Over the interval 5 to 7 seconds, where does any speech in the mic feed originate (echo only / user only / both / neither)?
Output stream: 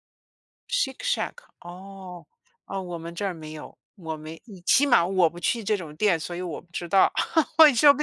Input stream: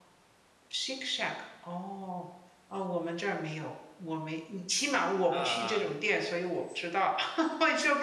both